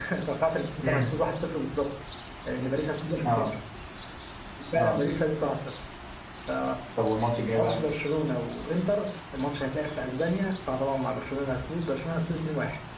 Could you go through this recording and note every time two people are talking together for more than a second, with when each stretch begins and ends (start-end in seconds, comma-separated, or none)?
none